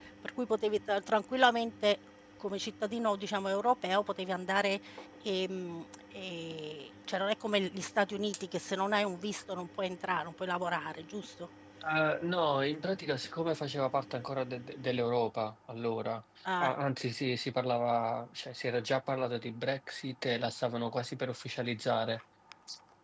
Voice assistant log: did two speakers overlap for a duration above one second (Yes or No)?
No